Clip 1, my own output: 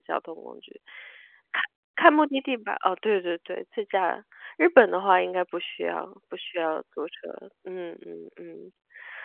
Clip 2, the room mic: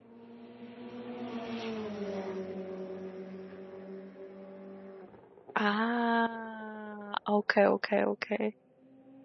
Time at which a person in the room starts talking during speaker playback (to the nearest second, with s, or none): 6 s